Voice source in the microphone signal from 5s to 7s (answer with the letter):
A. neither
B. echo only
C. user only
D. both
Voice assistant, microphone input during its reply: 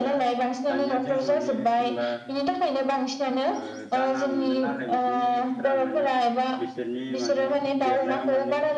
D